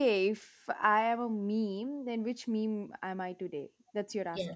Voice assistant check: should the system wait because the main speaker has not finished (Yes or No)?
No